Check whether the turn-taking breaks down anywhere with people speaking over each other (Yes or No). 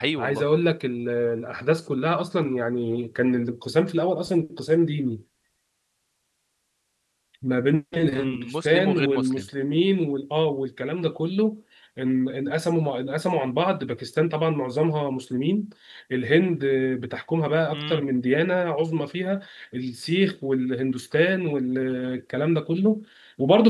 Yes